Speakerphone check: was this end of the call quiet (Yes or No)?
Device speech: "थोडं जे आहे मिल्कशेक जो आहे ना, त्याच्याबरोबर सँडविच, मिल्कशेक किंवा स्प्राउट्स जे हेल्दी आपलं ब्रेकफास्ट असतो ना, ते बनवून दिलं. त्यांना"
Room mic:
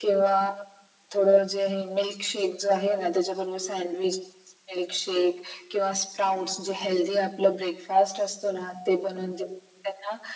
Yes